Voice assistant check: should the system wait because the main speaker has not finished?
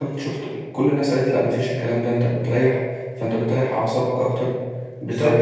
No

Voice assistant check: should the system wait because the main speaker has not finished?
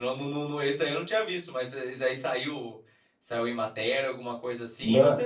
No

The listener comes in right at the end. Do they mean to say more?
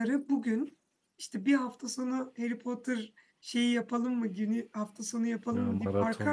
No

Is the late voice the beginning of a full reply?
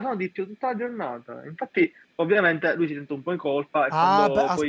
Yes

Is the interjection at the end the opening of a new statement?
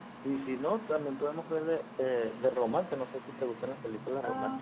Yes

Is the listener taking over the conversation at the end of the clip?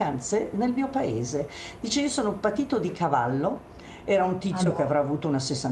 No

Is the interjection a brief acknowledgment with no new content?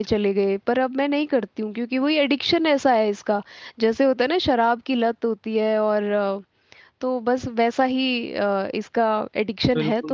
No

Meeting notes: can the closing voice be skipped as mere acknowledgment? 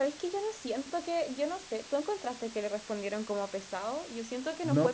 No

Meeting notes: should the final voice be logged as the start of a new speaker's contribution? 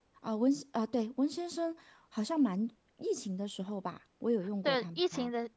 Yes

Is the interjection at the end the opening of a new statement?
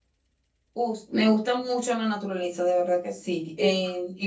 No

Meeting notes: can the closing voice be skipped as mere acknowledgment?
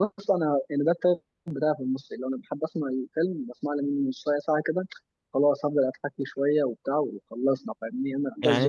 No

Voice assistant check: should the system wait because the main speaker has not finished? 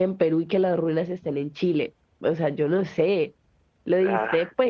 Yes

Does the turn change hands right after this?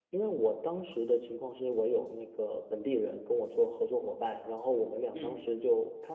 No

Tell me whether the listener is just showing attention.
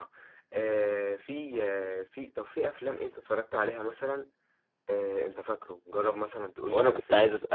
No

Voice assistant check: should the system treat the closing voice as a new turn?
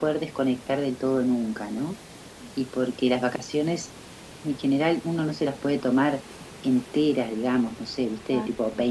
No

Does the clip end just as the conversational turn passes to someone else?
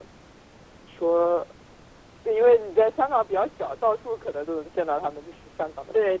Yes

